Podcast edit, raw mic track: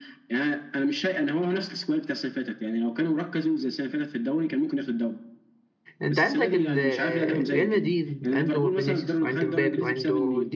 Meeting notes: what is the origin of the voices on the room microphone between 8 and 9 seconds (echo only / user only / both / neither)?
both